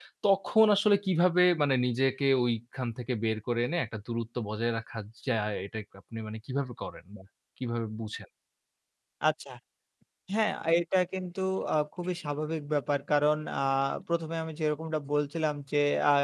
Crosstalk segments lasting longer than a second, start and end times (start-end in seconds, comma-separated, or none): none